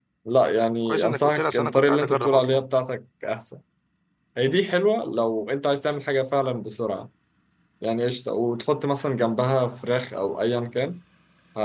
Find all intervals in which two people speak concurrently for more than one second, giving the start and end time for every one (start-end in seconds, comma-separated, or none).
0.8-2.6